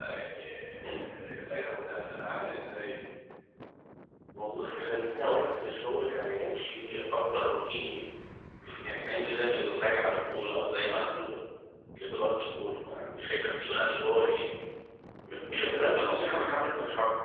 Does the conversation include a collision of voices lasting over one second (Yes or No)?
No